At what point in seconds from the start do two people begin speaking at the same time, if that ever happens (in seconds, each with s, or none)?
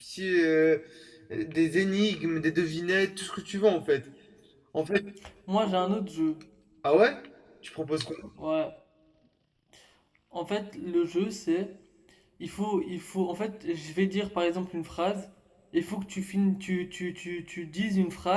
none